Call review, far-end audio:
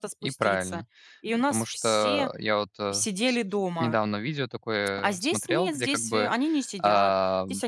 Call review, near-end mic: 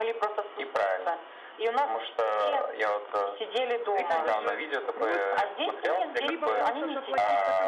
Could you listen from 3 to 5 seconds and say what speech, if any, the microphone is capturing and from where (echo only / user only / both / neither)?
both